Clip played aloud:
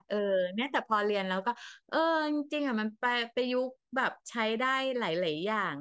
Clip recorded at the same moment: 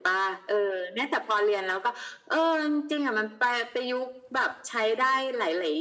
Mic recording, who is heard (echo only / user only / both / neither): echo only